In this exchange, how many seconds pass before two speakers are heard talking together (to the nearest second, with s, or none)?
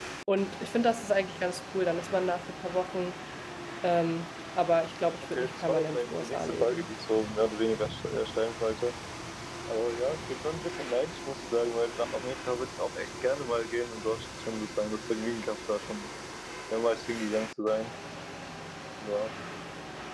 5 s